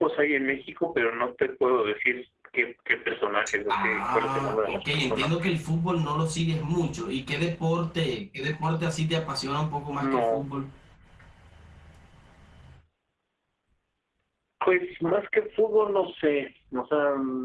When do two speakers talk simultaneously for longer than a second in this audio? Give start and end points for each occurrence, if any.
3.7-5.6

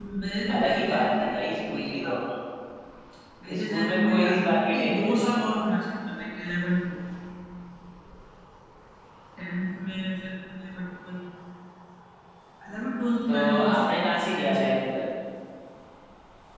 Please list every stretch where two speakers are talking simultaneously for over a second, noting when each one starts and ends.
0.5-2.2, 3.6-5.3, 13.3-14.8

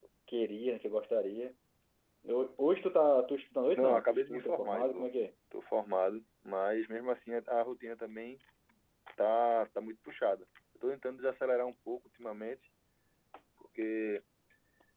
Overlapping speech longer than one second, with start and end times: 3.8-5.0

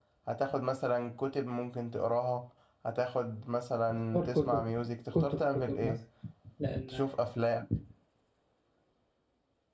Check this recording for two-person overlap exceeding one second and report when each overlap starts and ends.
3.9-6.0

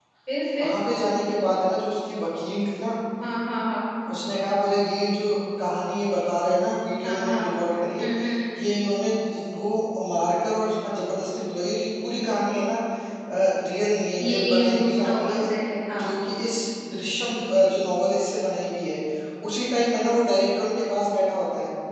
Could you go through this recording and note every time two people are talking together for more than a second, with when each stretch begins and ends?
14.2-15.4

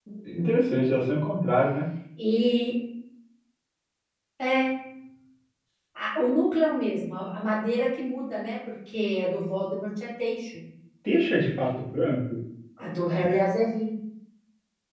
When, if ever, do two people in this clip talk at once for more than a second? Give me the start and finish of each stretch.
none

